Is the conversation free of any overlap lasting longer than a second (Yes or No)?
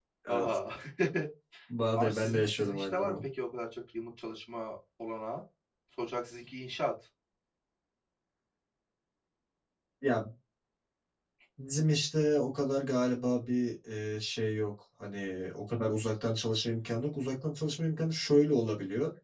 No